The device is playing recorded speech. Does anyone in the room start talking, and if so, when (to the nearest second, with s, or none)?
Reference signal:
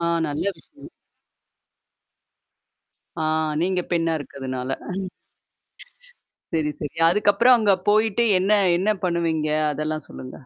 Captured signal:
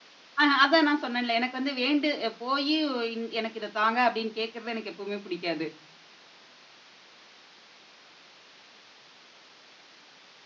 0 s